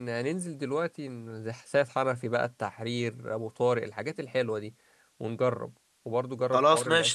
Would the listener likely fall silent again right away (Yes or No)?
No